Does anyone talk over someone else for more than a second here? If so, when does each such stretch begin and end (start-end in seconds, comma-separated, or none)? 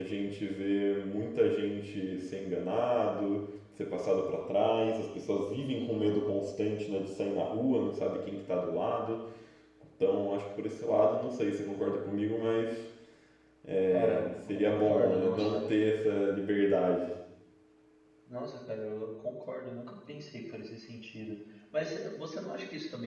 13.9-15.7